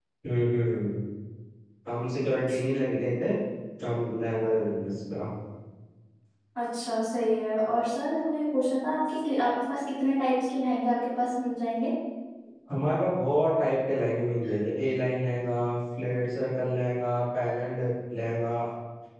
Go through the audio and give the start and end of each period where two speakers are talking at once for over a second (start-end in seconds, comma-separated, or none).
none